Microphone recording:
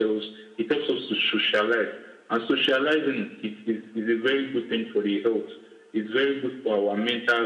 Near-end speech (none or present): none